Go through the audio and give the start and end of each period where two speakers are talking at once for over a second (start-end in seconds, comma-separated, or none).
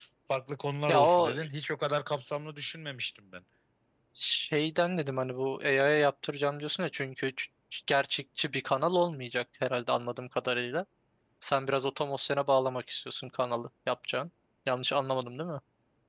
none